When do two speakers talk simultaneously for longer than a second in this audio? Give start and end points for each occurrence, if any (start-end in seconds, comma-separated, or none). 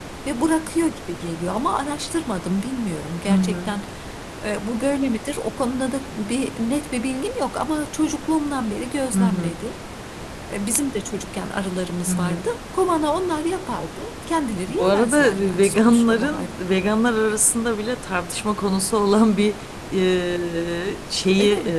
14.7-16.5